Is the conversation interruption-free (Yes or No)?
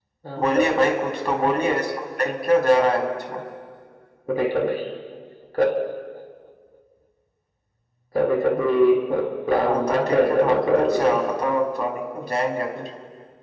No